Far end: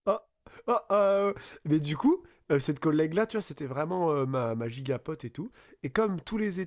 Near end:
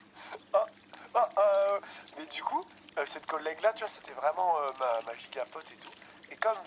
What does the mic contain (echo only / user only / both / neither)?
echo only